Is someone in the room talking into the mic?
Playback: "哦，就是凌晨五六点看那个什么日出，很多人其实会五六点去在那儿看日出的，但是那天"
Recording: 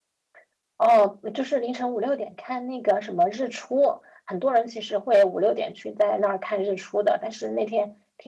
No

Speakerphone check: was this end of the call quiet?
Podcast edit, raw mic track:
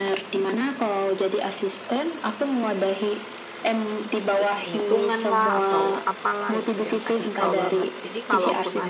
No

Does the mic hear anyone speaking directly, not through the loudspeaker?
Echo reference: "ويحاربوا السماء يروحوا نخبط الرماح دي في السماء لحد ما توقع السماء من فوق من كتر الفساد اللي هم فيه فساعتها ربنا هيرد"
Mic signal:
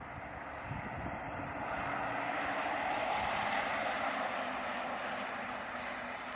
No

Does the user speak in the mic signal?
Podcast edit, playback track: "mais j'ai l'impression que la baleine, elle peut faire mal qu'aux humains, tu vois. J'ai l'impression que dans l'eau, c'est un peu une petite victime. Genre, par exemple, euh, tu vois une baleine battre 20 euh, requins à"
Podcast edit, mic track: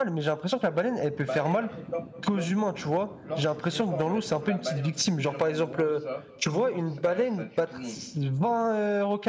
Yes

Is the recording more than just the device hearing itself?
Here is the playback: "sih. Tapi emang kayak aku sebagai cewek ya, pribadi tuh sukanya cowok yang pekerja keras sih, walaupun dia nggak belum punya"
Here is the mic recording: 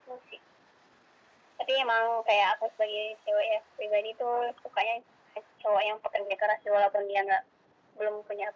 No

